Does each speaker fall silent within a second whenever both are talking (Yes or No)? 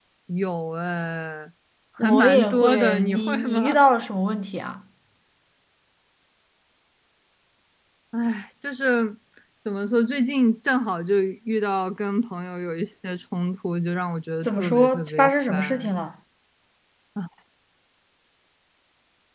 No